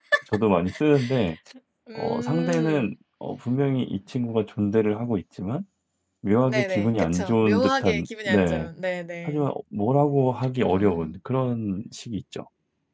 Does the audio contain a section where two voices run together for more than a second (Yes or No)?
Yes